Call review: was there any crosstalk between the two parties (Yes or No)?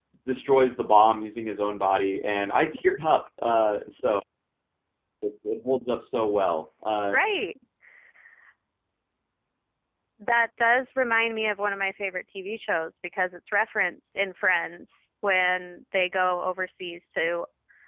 No